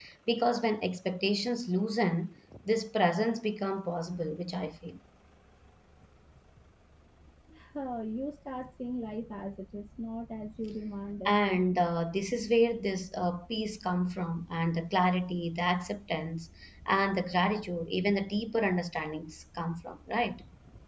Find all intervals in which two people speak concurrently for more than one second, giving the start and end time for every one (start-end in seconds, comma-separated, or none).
none